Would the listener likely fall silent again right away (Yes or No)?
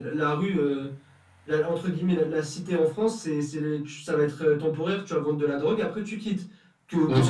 No